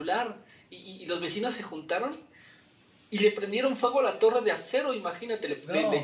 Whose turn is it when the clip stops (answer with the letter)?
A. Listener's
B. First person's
B